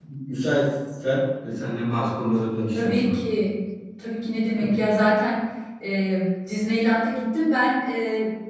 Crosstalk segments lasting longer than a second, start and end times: none

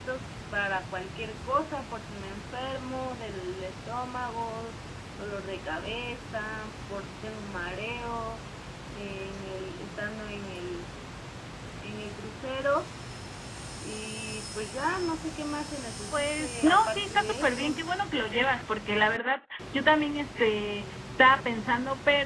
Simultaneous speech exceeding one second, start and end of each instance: 16.1-17.8

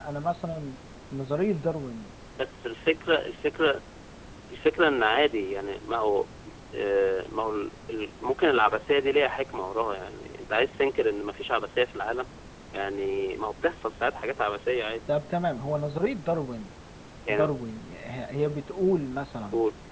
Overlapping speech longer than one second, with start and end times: none

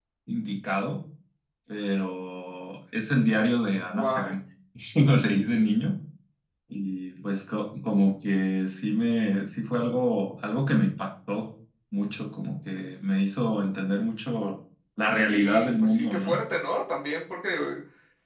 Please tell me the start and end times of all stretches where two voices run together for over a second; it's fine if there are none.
15.1-16.4

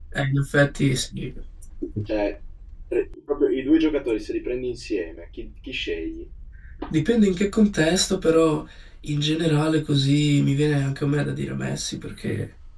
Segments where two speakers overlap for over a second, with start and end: none

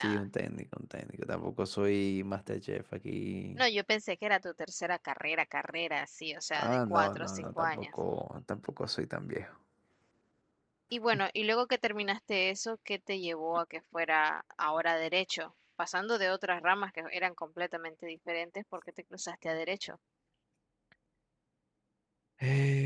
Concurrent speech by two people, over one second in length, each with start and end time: 6.5-7.9

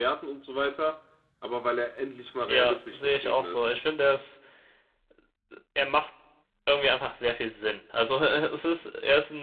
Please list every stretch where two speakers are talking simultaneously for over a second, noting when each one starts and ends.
2.5-3.7

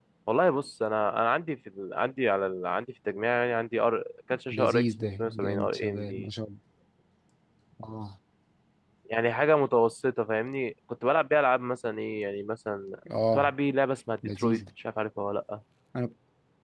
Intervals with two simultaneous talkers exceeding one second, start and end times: 4.5-6.3

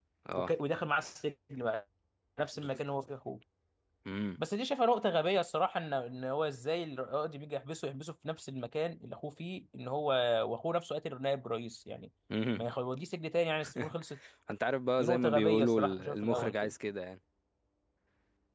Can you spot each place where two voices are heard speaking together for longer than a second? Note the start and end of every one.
15.0-16.7

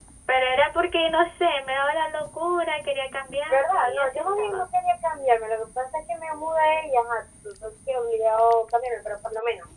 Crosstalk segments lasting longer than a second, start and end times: 3.2-4.6

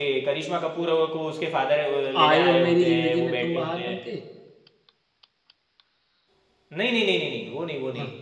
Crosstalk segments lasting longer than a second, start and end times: 2.2-4.0

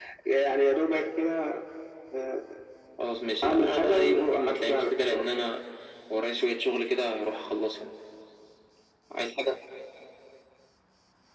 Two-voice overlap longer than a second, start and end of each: 3.4-5.3

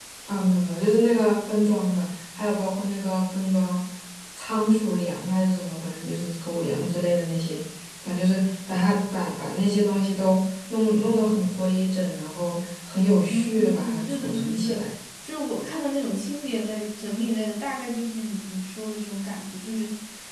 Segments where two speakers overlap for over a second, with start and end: 13.3-14.8

